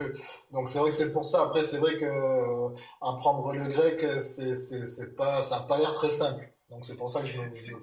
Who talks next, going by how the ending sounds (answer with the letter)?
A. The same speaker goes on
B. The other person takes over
B